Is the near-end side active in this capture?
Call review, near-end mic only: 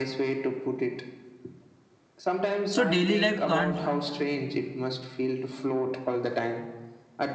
Yes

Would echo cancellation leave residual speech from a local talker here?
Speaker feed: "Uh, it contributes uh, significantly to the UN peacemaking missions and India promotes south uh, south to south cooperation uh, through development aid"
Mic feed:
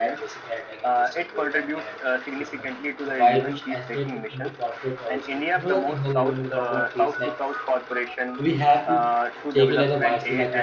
Yes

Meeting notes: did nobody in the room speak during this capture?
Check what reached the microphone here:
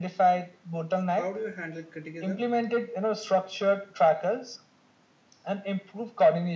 No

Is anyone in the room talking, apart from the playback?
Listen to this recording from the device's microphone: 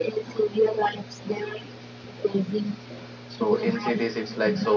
Yes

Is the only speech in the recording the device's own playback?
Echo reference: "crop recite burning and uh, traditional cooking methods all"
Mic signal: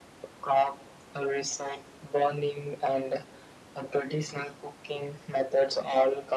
Yes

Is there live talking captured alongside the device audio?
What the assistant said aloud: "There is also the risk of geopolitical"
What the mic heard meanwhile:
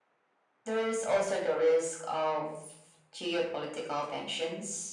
No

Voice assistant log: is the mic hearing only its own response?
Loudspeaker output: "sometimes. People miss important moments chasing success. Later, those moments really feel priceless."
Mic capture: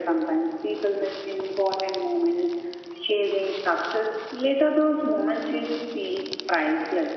Yes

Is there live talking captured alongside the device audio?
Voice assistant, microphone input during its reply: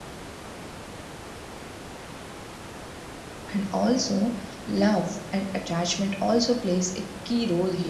Yes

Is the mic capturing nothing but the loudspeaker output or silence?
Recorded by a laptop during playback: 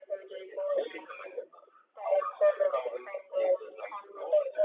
Yes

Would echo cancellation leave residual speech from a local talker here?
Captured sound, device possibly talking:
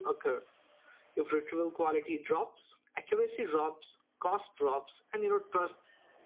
No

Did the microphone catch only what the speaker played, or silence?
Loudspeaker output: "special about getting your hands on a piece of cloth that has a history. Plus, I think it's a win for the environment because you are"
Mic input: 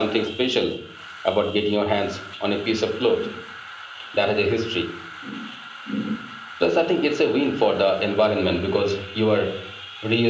Yes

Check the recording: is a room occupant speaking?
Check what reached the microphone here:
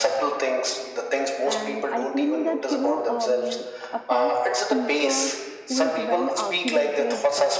Yes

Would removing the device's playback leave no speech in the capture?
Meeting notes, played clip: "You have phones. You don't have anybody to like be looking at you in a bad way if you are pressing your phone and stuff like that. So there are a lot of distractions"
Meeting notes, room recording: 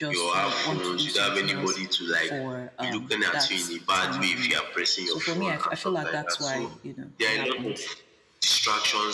No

